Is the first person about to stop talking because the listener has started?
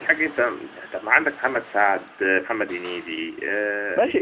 Yes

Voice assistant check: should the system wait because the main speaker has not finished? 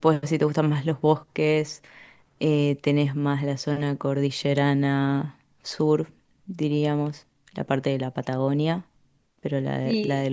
No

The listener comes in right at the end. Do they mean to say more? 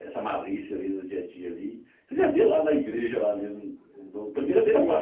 Yes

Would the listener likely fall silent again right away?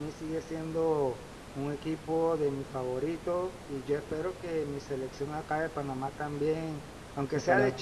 Yes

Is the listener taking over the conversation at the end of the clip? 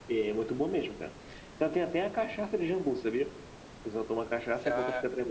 Yes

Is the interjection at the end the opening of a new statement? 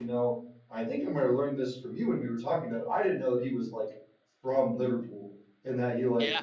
No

